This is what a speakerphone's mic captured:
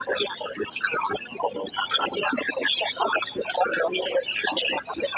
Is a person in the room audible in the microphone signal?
No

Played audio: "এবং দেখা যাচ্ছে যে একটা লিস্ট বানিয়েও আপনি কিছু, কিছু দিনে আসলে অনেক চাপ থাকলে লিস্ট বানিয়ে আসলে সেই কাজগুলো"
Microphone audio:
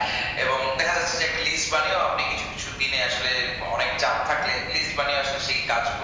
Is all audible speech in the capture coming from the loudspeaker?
Yes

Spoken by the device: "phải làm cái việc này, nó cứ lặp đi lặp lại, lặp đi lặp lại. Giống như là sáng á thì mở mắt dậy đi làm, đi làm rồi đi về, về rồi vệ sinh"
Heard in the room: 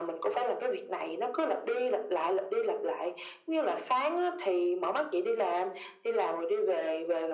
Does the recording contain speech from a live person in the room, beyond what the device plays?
No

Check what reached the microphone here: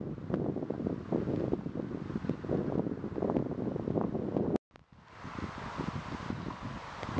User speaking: No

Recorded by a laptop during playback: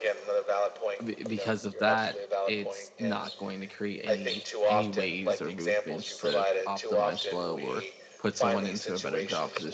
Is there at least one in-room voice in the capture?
Yes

